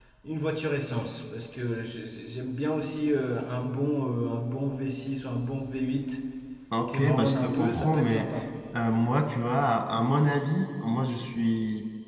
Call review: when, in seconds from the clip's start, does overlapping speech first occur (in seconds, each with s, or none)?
6.9 s